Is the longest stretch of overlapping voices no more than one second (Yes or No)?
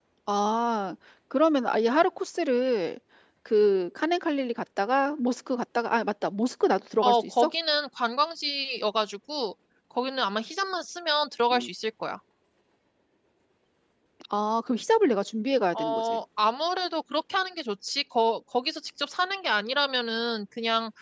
Yes